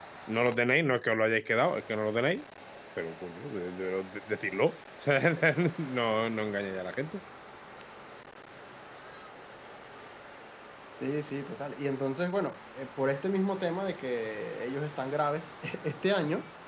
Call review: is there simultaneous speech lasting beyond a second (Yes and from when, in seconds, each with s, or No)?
No